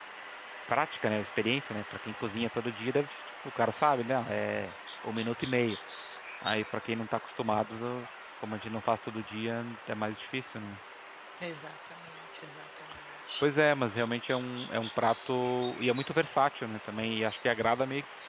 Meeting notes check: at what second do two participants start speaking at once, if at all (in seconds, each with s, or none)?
none